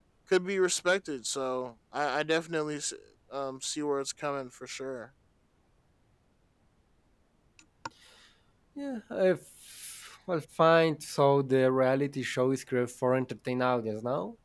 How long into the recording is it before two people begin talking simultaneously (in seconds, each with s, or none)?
none